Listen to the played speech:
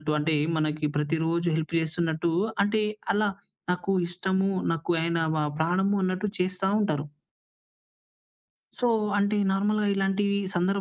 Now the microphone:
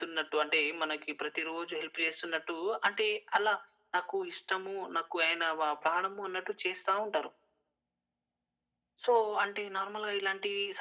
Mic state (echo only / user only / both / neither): echo only